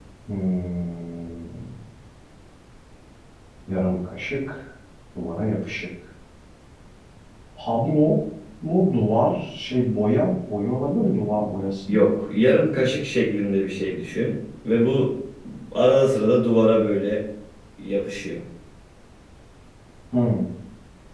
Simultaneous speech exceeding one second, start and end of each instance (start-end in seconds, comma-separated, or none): none